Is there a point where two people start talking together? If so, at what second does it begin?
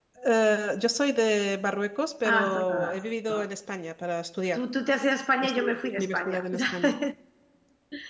2 s

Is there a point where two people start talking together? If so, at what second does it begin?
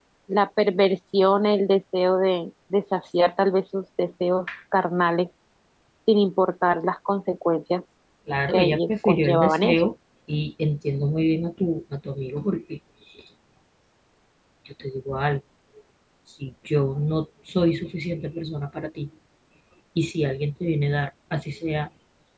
8 s

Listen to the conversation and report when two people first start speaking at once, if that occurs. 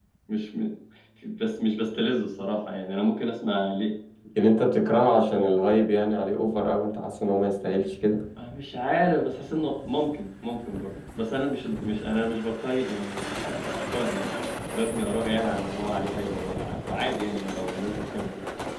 none

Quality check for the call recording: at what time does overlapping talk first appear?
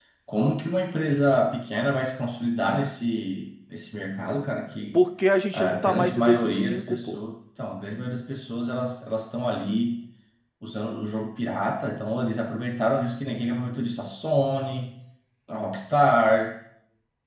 6 s

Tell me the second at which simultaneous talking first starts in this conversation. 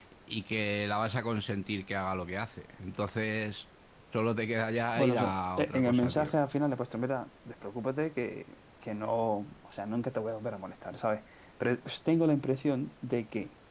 5 s

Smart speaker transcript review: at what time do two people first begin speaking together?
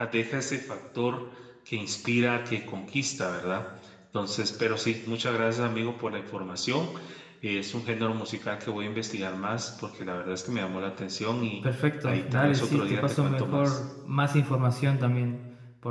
12 s

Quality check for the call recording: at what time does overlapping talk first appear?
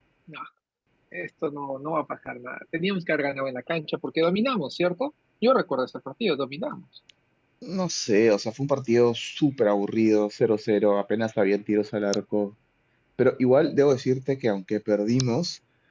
none

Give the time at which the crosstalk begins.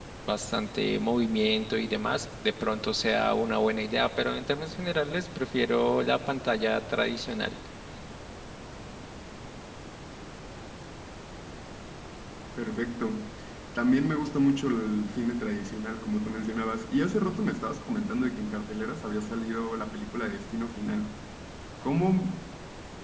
none

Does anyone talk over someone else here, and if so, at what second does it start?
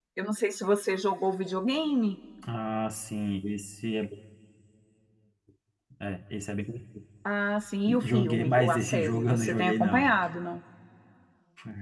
8 s

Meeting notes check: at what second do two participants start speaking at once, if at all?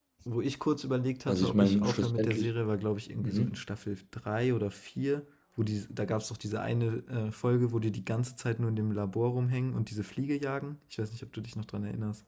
1 s

